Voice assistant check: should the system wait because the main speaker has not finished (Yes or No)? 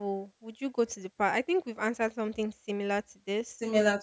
No